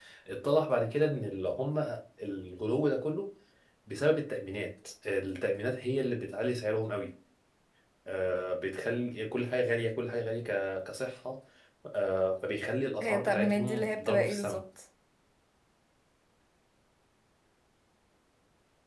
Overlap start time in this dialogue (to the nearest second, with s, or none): 13 s